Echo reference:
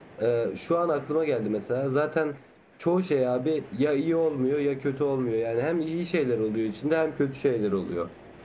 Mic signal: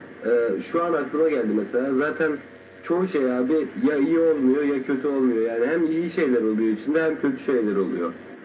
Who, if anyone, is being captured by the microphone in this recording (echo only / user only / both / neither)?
echo only